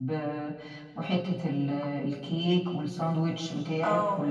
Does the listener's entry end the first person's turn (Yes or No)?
Yes